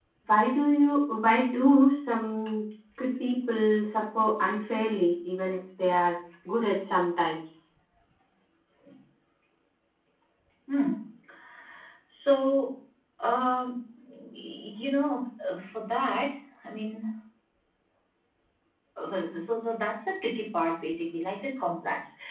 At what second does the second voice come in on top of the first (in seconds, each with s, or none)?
none